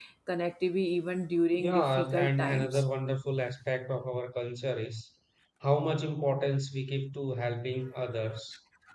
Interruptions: present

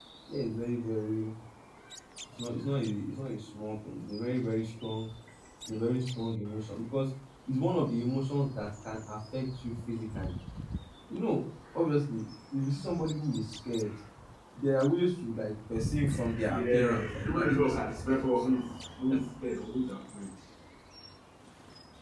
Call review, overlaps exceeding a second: present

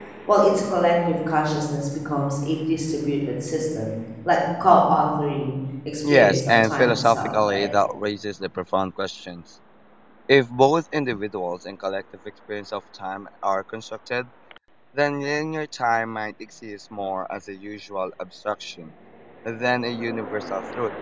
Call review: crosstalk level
present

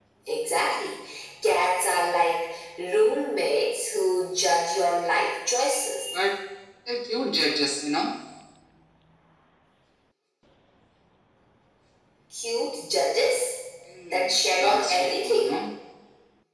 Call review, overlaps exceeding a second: present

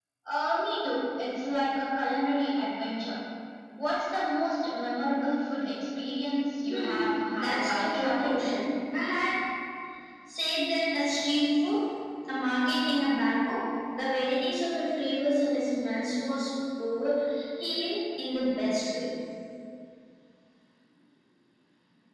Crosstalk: present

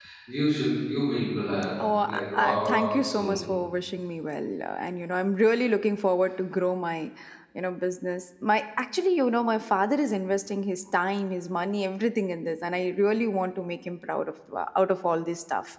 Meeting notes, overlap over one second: present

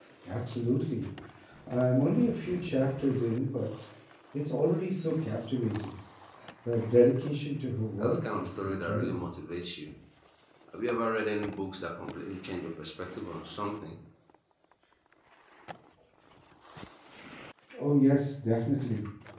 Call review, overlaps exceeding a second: present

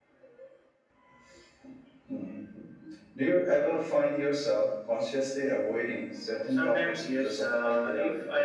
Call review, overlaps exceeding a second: present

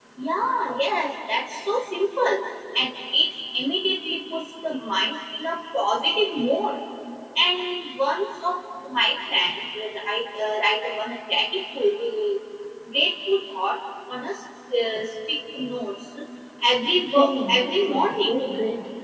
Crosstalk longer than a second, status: present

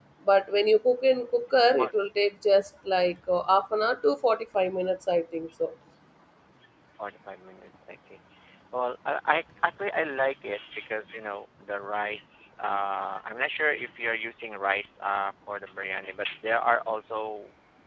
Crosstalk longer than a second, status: none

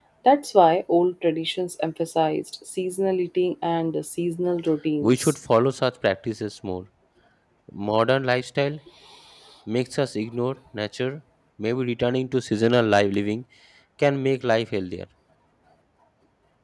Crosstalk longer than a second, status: none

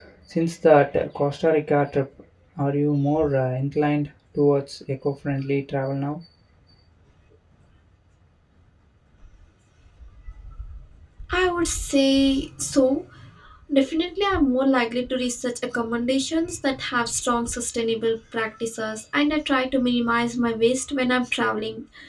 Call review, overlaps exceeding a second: none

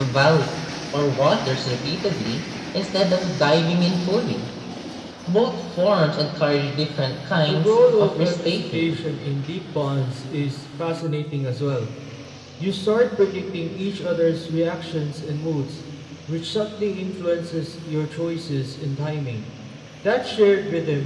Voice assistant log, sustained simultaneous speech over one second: present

